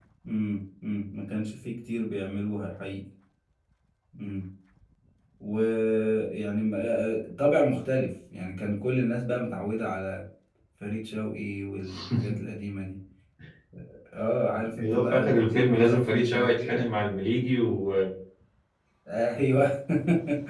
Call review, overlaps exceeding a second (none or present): present